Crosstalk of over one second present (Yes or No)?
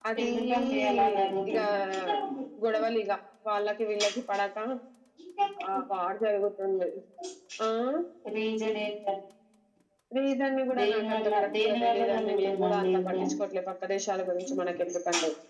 Yes